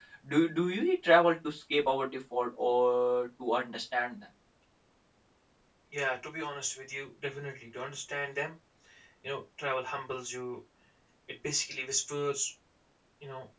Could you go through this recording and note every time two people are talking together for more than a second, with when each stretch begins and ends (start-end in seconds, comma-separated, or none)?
none